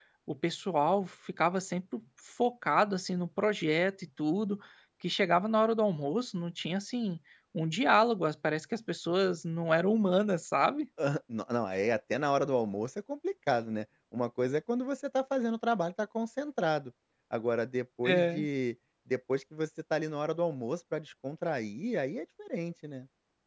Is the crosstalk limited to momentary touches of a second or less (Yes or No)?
Yes